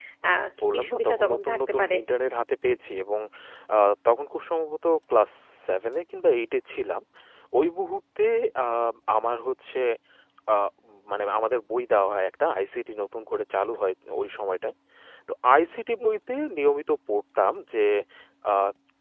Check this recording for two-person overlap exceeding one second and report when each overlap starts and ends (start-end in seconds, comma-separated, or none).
0.6-1.9